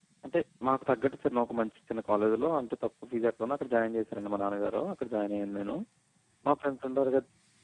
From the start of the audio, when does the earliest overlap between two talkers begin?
none

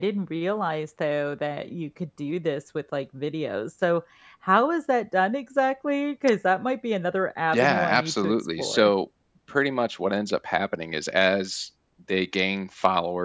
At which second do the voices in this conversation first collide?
7.5 s

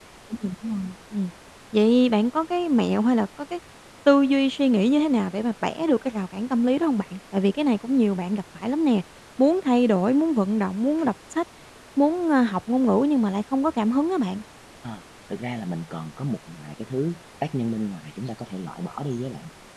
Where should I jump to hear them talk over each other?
none

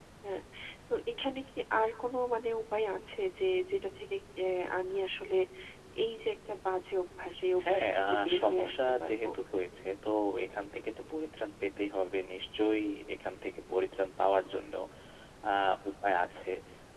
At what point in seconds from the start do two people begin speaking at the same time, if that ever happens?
7.6 s

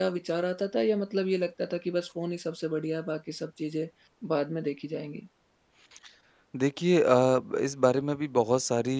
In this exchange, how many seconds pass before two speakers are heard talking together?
none

